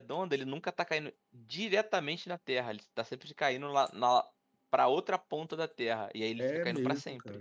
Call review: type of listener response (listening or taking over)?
taking over